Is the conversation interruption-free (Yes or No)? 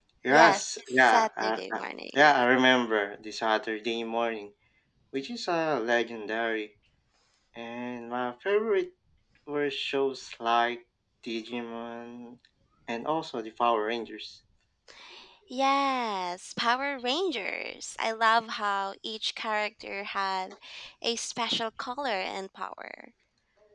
No